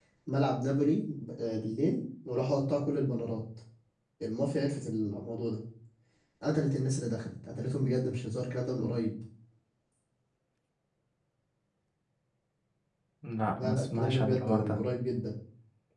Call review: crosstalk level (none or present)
present